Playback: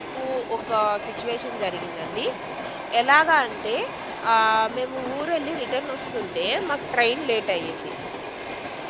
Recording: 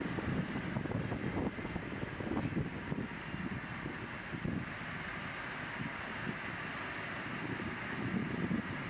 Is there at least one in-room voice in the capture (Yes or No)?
No